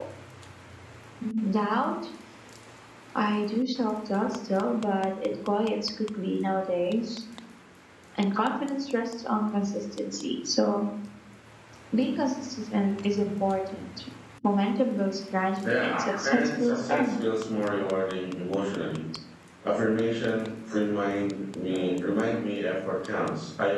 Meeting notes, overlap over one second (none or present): present